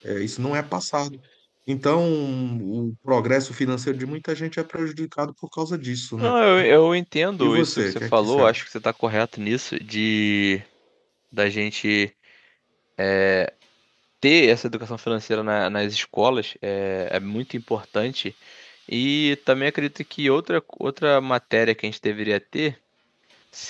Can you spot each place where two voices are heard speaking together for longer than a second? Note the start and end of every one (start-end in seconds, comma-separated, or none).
7.4-8.6